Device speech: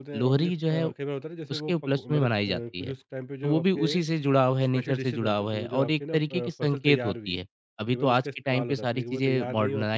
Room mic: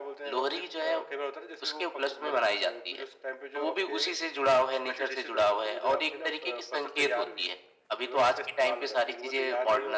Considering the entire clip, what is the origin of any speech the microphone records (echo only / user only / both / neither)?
echo only